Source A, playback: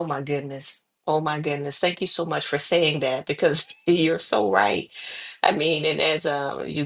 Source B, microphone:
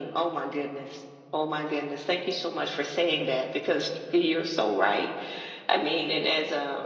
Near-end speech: none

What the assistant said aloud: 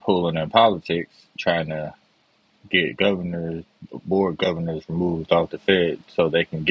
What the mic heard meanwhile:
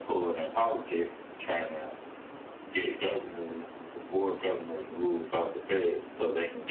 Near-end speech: none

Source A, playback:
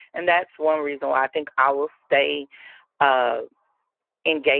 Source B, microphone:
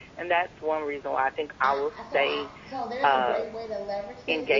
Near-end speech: present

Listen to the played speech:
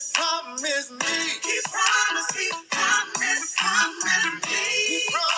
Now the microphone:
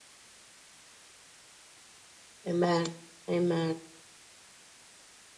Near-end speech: present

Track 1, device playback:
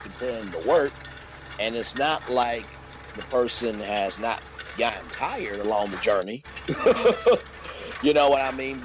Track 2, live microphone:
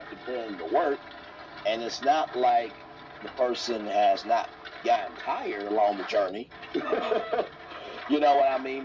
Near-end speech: none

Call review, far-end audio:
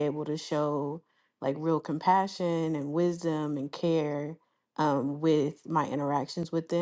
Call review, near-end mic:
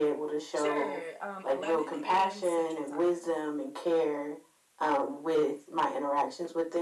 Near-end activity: present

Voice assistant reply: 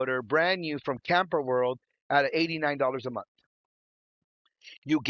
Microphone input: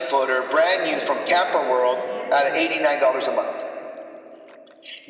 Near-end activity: present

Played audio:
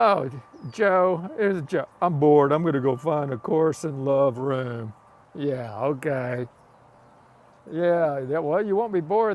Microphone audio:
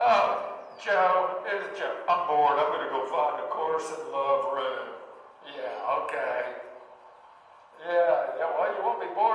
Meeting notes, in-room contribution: none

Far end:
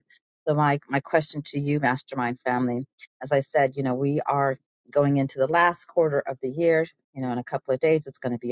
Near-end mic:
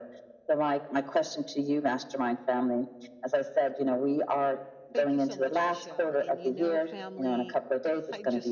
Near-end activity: present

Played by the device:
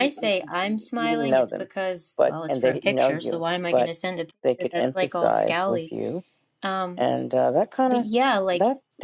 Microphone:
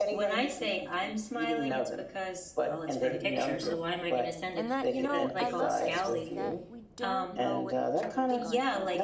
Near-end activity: present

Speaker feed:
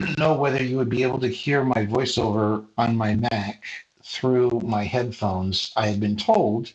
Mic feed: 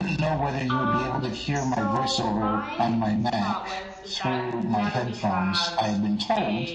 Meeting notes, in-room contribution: present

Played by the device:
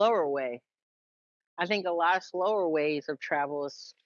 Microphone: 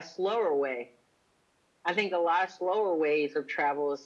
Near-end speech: none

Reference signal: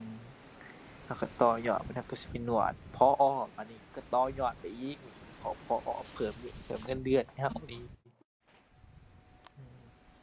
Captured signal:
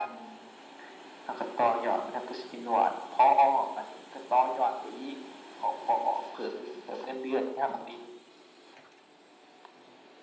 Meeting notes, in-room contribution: none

